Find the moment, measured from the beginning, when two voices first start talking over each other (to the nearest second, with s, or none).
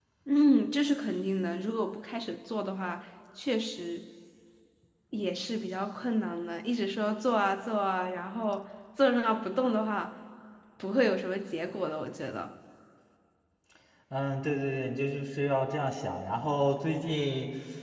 none